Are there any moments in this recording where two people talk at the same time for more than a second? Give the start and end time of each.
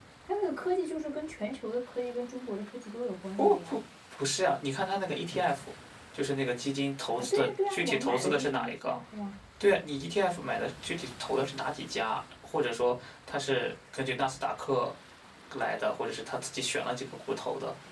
7.2-9.0

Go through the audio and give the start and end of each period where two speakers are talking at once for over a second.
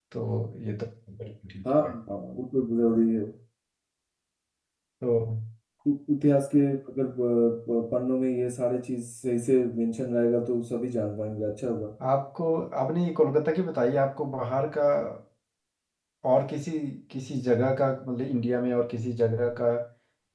none

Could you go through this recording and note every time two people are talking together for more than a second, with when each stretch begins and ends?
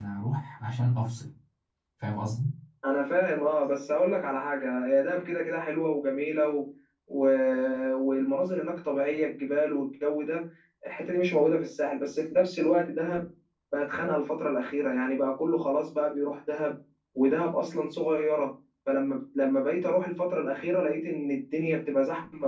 none

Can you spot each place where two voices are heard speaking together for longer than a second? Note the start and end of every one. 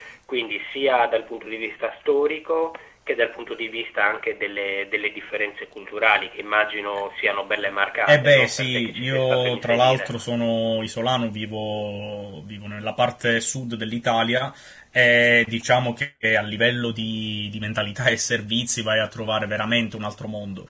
8.1-10.1

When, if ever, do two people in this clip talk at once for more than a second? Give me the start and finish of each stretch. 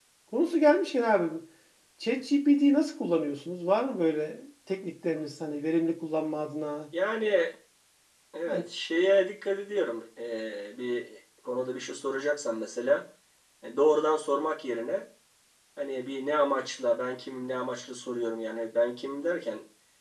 none

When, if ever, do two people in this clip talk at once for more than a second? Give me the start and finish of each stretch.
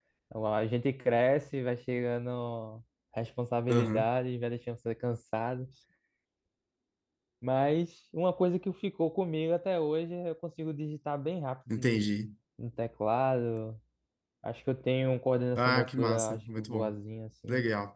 15.6-16.9

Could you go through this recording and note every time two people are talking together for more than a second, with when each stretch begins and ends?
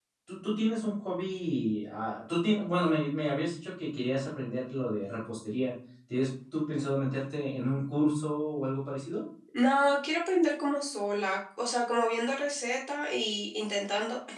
none

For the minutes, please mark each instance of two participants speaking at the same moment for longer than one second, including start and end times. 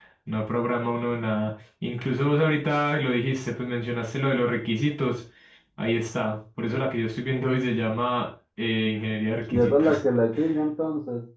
none

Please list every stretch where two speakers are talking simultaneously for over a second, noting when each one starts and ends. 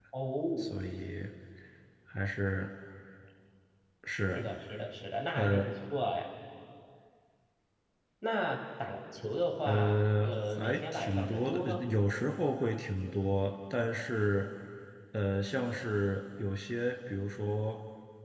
9.6-11.8

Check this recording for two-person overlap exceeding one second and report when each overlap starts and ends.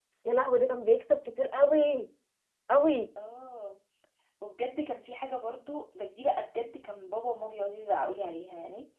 none

